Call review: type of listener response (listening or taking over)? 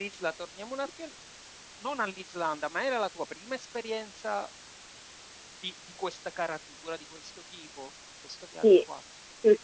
taking over